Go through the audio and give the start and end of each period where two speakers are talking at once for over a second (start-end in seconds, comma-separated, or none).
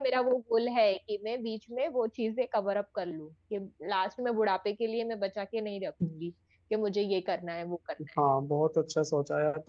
none